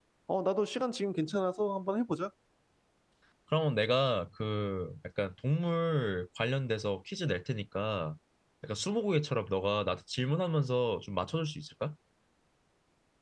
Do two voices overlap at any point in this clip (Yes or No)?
No